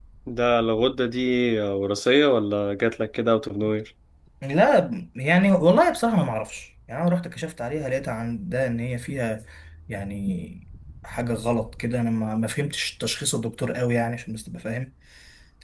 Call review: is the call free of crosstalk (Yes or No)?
Yes